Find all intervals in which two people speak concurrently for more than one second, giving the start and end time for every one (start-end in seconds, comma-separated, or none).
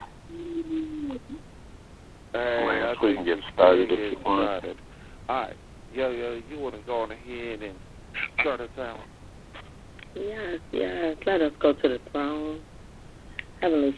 2.6-4.5